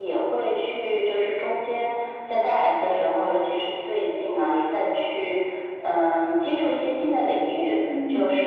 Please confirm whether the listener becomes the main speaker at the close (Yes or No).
No